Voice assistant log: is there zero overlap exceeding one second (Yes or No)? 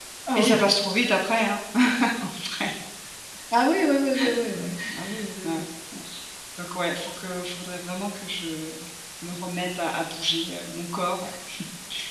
Yes